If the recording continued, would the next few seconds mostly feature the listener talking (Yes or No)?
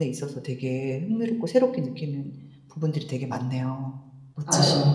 Yes